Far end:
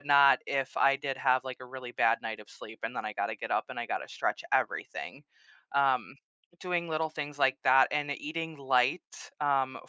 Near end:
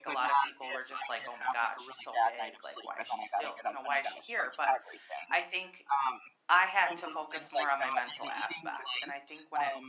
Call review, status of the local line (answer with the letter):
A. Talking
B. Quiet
A